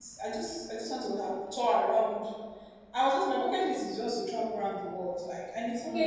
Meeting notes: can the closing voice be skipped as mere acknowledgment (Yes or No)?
No